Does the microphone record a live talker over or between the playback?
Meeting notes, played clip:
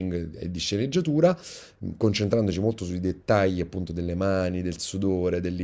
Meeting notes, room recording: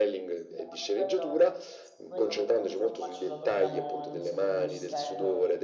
Yes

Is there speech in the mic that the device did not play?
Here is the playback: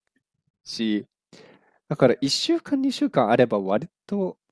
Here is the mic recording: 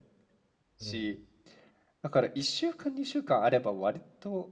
Yes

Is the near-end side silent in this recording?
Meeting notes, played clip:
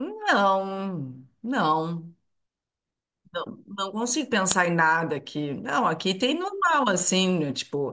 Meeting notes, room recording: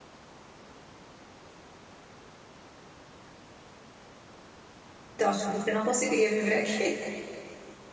No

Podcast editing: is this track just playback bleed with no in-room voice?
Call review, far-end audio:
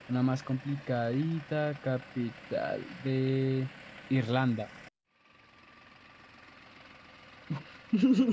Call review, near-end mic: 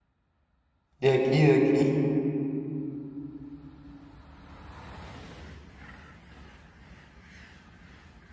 No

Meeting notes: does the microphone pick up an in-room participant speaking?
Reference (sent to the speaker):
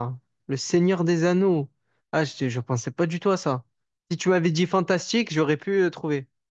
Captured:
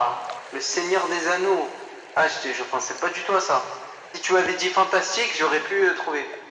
No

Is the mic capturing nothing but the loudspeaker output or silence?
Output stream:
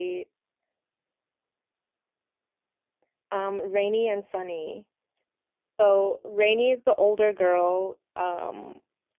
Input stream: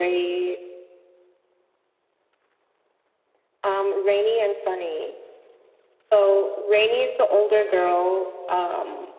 Yes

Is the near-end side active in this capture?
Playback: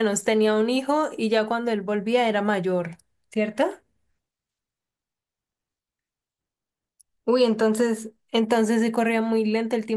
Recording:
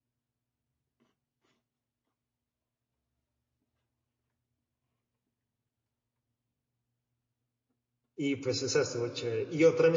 Yes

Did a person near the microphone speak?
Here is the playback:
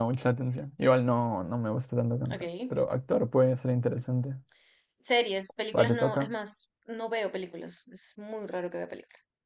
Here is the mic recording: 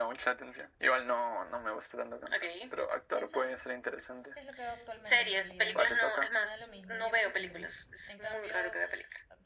Yes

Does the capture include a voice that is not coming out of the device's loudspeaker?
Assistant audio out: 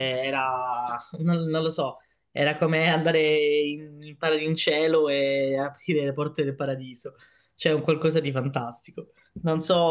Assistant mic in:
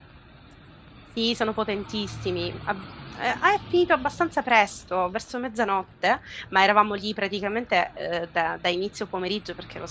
Yes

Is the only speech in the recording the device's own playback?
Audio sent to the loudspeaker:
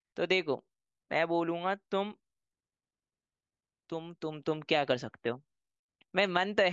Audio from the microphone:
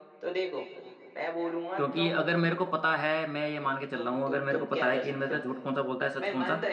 No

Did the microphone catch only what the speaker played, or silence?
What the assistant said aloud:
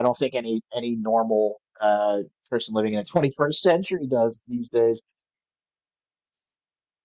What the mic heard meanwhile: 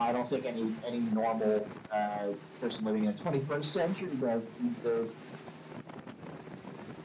Yes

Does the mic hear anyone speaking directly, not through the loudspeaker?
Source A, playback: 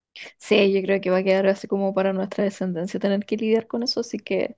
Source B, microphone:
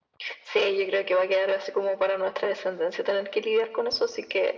No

